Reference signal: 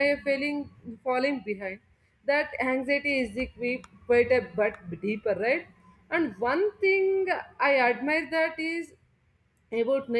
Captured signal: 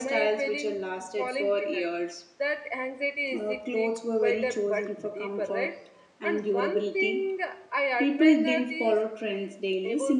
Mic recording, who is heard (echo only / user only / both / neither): both